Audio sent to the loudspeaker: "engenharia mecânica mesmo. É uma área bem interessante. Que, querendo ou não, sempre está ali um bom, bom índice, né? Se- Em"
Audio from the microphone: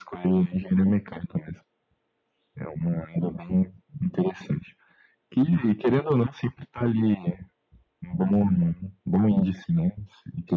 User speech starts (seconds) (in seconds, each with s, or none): none